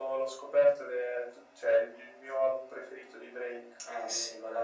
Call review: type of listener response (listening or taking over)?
taking over